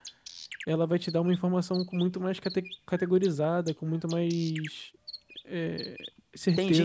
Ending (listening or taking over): taking over